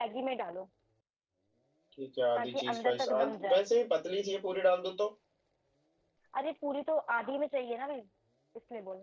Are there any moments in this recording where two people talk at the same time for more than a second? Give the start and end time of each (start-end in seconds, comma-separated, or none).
2.4-3.6